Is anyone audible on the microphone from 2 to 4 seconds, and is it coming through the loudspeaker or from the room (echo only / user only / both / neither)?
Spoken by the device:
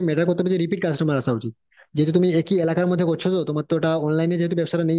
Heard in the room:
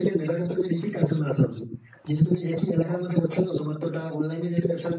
echo only